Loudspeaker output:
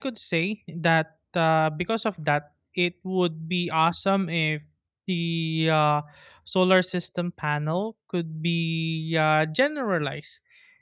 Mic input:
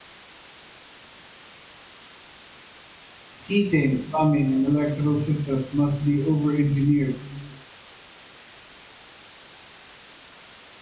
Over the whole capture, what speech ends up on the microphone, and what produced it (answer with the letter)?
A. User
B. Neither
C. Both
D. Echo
A